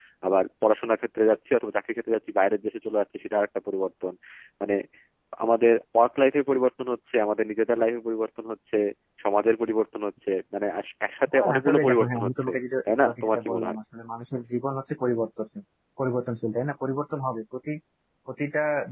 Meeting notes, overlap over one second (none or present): present